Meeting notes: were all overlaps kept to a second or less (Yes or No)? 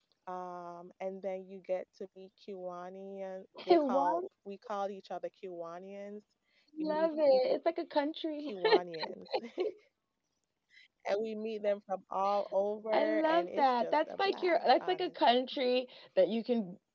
No